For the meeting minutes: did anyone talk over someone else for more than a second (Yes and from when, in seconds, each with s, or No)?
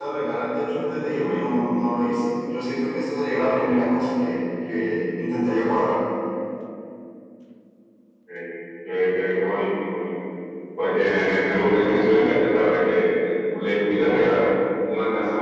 No